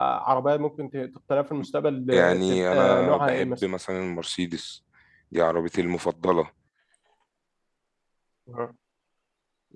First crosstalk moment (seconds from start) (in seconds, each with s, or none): 2.1 s